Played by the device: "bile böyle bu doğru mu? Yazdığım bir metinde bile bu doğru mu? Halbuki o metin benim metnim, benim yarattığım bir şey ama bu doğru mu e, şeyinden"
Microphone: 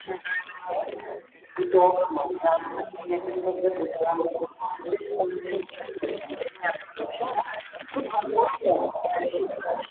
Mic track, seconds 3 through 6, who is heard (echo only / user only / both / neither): echo only